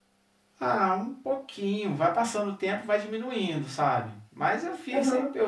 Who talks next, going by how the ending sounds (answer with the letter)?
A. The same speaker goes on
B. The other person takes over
A